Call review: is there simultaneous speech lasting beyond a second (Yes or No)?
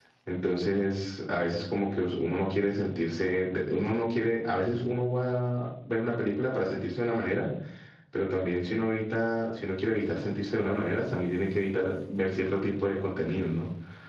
No